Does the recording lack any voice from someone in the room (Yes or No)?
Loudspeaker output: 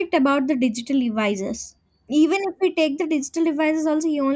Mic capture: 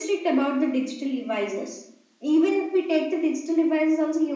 Yes